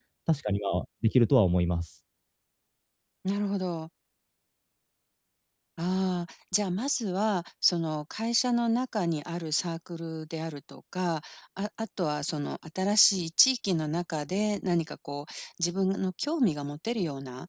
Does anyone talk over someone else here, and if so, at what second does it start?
none

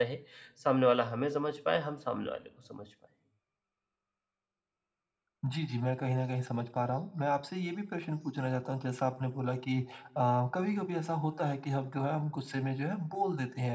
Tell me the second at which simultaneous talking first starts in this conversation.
none

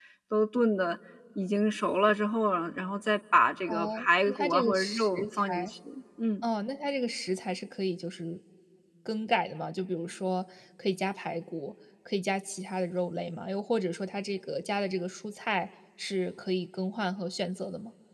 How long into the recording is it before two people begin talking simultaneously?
3.7 s

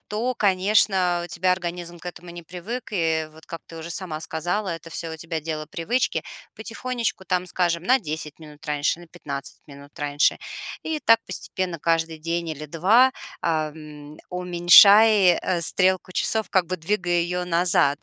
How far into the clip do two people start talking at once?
none

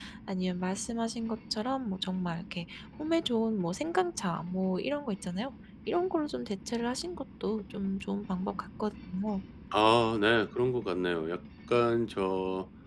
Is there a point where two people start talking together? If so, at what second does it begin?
none

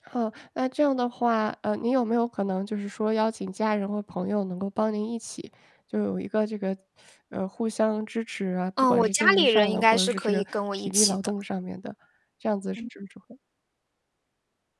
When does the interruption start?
8.8 s

